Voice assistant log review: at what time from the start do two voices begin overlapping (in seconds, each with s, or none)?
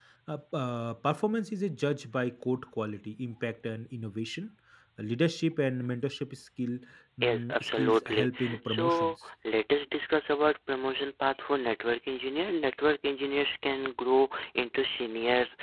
7.2 s